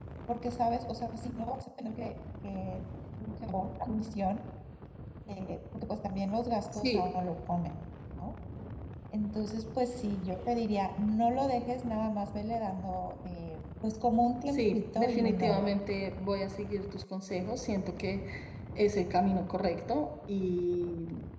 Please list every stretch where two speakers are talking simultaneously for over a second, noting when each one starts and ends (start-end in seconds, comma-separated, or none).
14.5-15.8